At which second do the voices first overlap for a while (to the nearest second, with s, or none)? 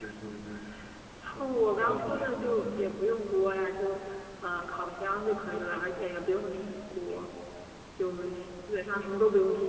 1 s